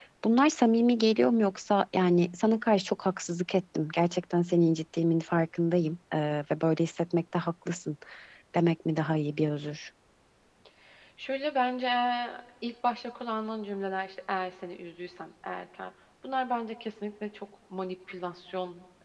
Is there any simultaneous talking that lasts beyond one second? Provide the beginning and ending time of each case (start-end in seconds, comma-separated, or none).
none